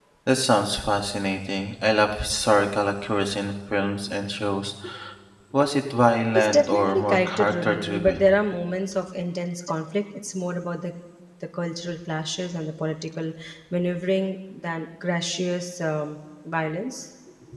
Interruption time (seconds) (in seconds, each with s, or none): 6.3 s